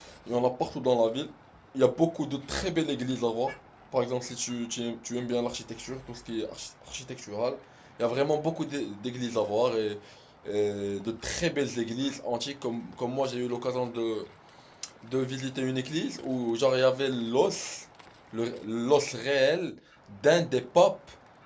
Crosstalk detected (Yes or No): No